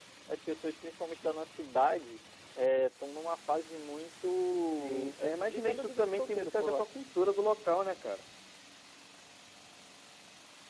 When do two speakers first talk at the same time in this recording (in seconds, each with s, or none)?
4.6 s